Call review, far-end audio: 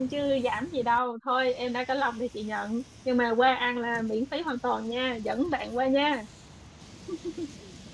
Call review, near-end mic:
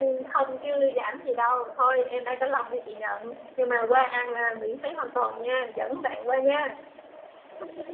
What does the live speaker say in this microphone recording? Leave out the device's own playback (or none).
none